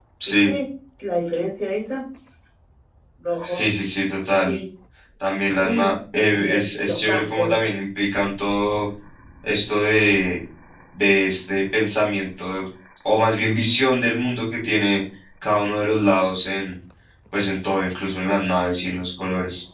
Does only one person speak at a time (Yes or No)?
No